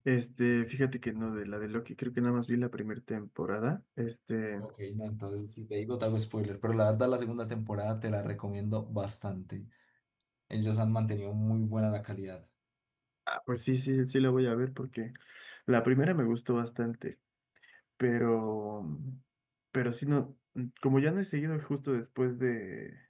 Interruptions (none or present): none